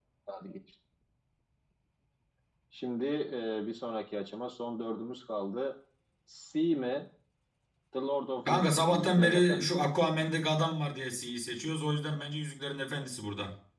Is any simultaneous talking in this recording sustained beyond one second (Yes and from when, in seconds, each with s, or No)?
Yes, from 8.5 s